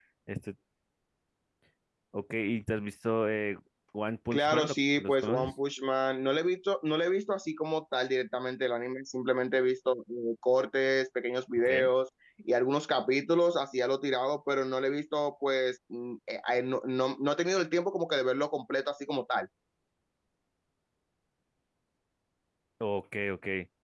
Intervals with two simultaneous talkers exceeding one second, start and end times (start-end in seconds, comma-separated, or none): 4.3-5.5